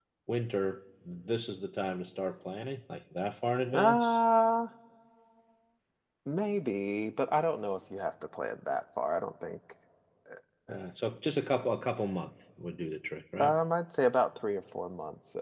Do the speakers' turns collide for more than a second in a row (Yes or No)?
No